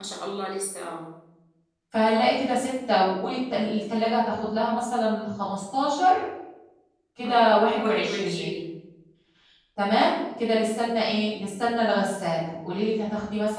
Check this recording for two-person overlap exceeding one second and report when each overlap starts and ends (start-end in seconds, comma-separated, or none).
7.2-8.6